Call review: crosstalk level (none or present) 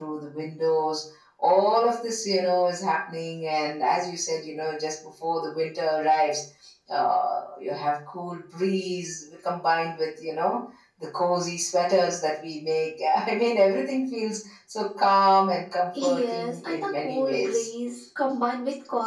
present